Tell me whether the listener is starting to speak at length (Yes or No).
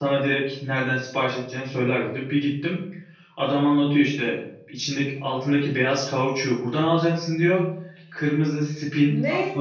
No